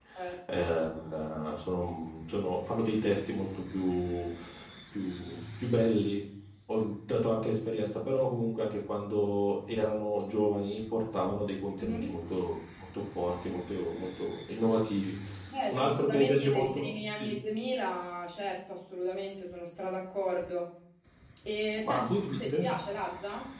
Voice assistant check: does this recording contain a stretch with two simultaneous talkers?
Yes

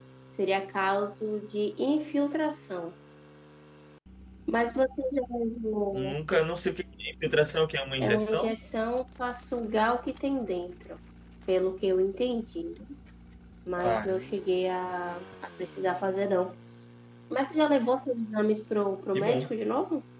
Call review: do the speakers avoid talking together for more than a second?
Yes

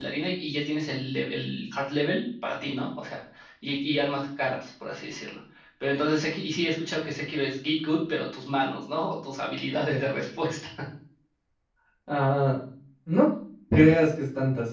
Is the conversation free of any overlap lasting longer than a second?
Yes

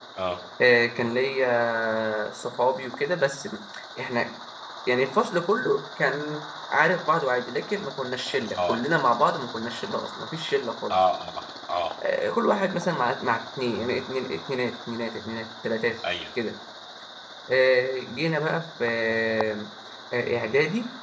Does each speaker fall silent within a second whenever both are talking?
Yes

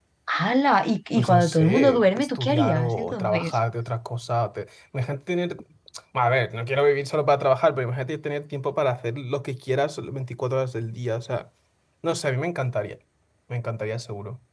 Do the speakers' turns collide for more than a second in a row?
Yes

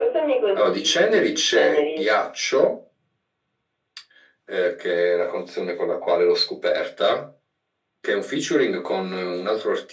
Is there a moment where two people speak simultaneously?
Yes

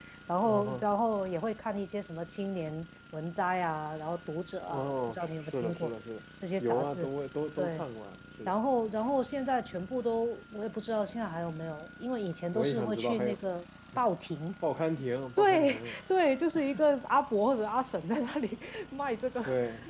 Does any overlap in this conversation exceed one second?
Yes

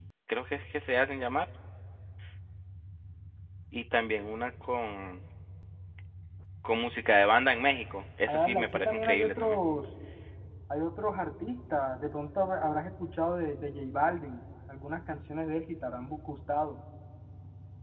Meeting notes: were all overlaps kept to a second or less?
No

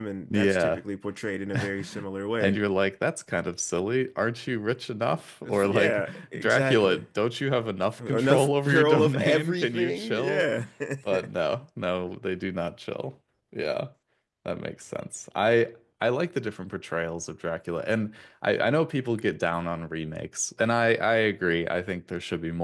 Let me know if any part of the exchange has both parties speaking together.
Yes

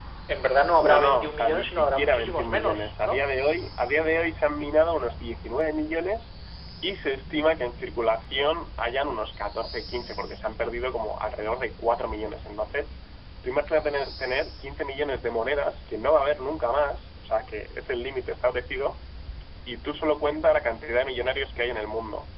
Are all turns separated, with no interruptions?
No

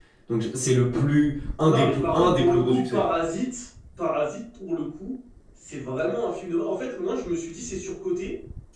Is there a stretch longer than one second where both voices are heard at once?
Yes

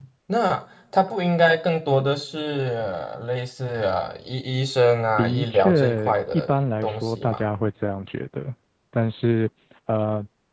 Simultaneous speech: Yes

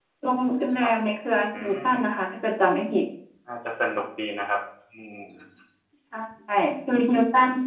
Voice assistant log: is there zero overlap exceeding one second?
Yes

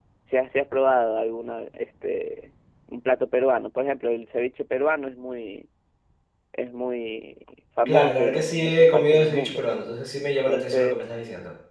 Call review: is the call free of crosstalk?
No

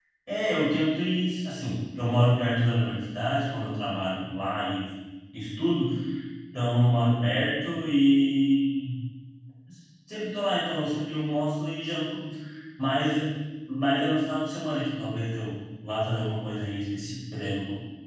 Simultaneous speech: No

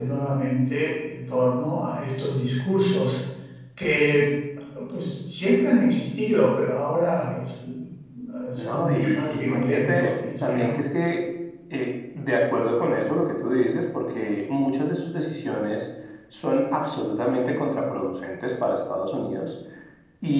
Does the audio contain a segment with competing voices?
Yes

